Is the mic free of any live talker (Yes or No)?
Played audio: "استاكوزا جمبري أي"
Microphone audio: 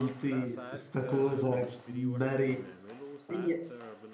No